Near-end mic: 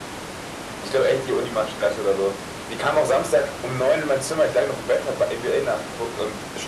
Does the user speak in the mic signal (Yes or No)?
No